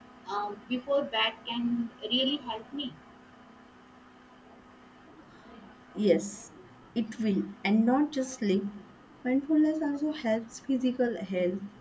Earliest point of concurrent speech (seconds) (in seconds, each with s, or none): none